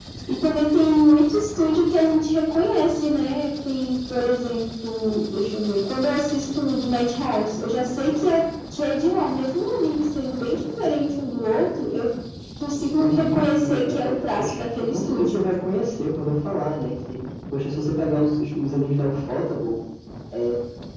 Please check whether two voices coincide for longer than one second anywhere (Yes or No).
Yes